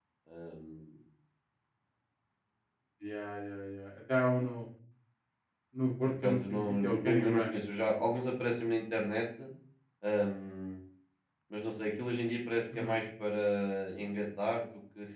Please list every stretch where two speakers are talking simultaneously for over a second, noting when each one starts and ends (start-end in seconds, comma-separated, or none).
6.0-7.6